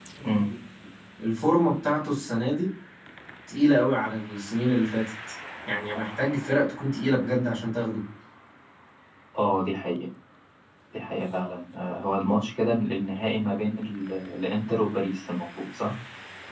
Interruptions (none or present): none